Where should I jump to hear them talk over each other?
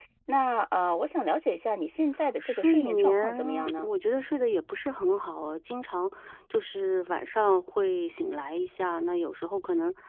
2.4 s

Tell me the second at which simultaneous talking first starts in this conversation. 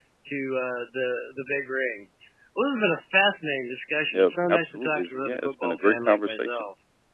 4.1 s

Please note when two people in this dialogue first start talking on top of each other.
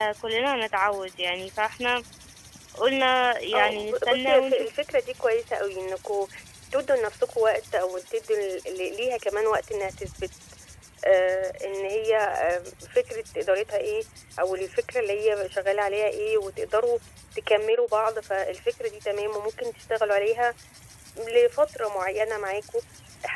3.5 s

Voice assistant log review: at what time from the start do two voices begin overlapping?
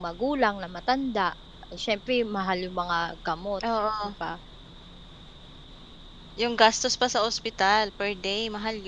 none

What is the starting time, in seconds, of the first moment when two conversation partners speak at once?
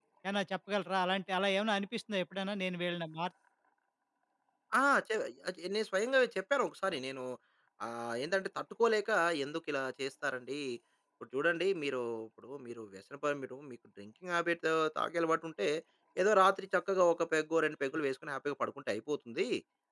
none

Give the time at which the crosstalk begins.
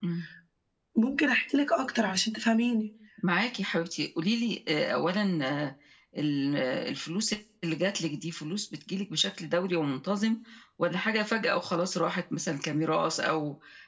none

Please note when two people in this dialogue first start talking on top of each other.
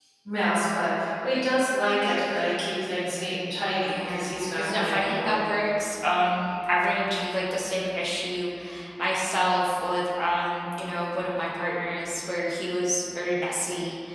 3.9 s

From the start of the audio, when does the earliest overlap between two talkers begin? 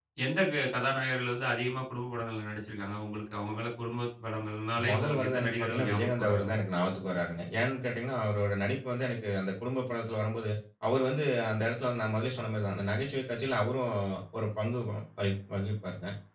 4.8 s

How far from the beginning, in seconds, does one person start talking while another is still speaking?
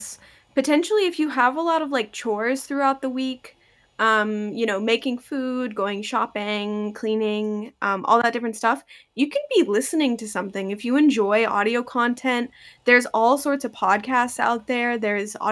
none

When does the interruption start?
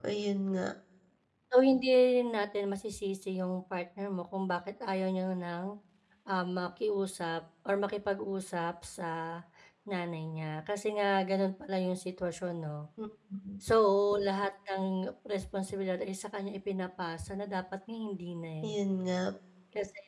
none

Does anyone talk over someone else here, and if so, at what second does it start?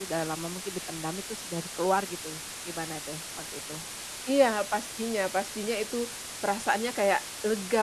none

